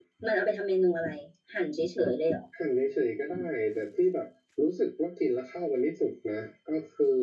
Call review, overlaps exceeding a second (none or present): none